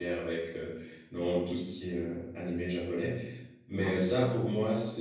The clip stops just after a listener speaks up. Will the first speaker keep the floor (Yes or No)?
Yes